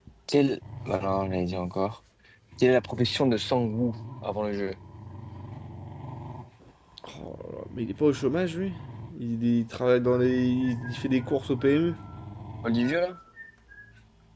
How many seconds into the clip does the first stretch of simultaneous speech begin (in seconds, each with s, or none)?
none